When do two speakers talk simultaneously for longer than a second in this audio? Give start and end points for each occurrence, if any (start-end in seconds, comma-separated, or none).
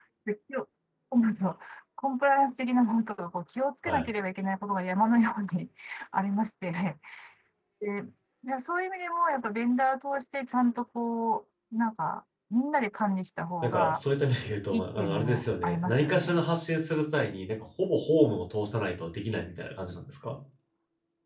14.7-16.5